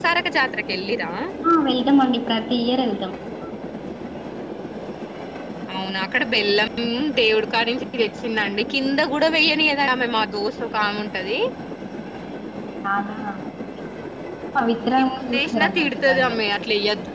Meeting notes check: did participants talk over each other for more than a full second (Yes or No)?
Yes